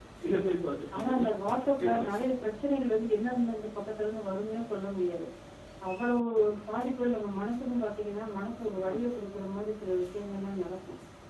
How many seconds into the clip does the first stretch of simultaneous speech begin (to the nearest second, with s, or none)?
1 s